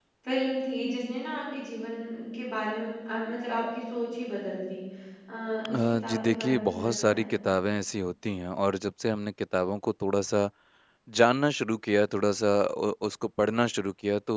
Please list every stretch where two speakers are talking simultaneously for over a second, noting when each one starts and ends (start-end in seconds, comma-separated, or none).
5.7-7.3